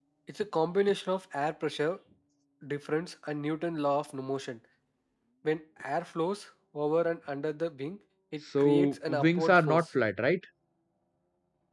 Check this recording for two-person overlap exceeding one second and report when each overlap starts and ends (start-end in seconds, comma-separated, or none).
8.6-9.8